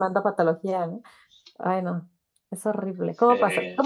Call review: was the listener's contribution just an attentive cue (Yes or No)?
Yes